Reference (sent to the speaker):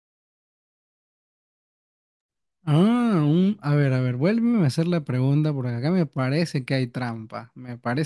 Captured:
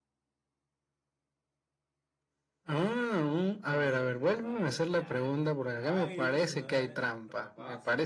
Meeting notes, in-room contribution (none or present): present